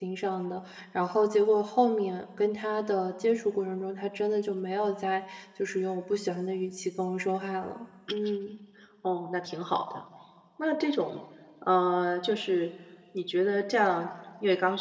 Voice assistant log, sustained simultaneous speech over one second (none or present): none